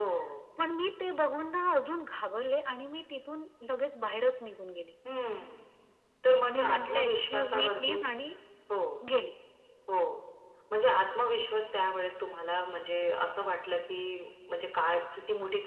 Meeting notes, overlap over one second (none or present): present